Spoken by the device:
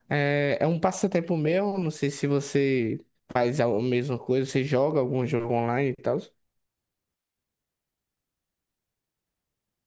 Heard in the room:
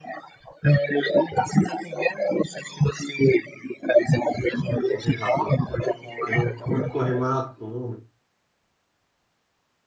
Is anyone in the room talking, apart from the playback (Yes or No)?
Yes